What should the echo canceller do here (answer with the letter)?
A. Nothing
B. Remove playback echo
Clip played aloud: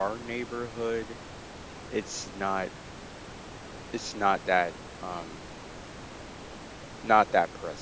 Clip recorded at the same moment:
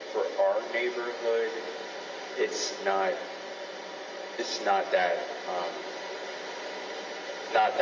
B